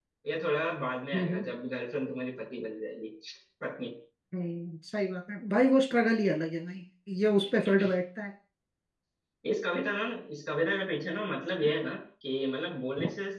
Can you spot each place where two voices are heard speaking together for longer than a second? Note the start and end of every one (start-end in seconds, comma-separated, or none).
none